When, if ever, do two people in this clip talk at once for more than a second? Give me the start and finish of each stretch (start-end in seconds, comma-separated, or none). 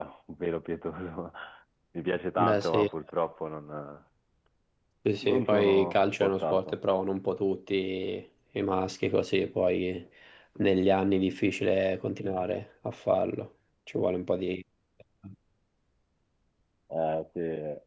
5.2-6.8